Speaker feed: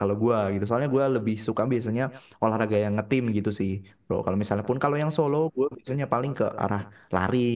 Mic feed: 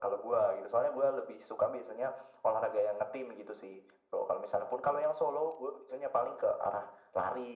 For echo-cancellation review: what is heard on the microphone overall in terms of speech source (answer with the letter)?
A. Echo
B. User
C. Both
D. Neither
A